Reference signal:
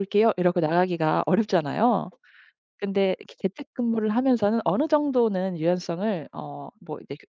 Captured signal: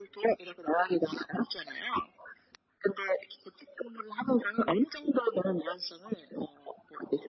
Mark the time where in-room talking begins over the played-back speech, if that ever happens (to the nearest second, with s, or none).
none